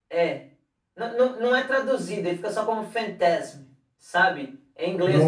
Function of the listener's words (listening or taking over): taking over